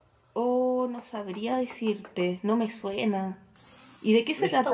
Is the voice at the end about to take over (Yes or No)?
Yes